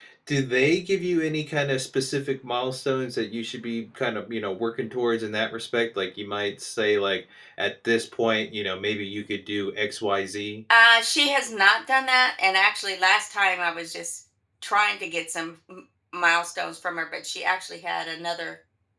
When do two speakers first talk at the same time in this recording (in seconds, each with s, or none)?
none